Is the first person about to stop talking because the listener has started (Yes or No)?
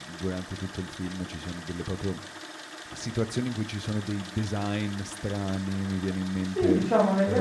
Yes